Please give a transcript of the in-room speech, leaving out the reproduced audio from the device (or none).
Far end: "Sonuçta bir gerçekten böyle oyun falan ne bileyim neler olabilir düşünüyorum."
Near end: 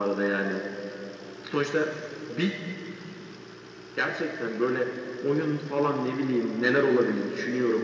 none